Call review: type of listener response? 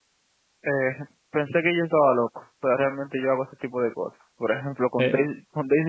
listening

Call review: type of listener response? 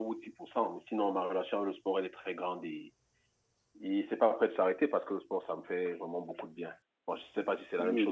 taking over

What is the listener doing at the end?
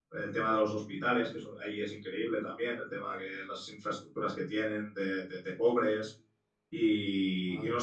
listening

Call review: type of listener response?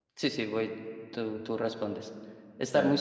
listening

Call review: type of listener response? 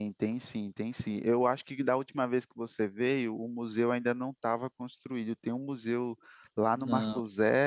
listening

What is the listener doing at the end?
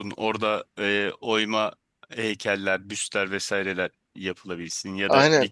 taking over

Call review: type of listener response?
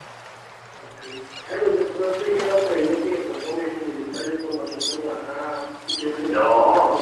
taking over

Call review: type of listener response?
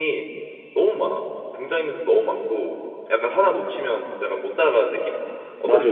taking over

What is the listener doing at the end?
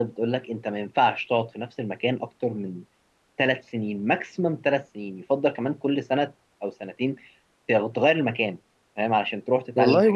taking over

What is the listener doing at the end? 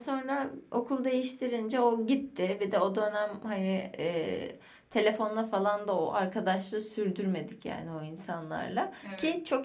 listening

